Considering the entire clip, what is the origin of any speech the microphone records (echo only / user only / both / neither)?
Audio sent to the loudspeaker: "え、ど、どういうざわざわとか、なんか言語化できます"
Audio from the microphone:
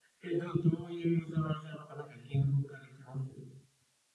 echo only